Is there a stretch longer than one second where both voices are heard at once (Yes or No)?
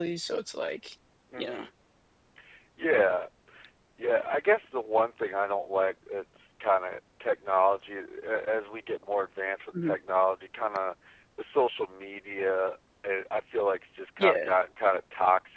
No